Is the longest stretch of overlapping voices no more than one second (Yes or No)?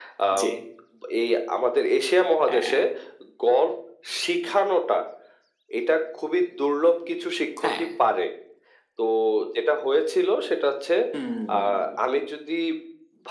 Yes